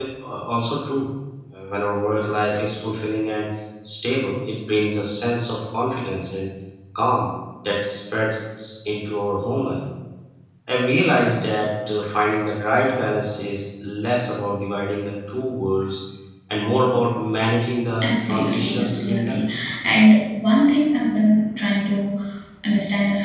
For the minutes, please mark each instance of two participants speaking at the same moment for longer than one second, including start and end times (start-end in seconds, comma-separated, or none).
18.0-19.4